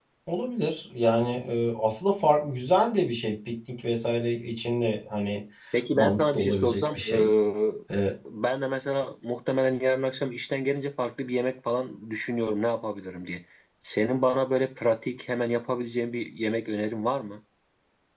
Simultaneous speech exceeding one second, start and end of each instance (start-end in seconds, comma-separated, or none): 6.0-7.3